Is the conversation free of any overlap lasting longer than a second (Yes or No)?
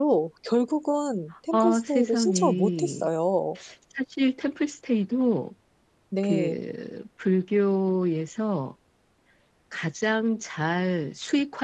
No